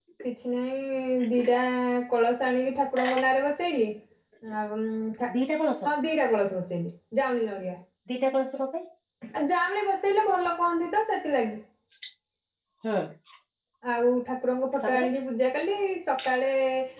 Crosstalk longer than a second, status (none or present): none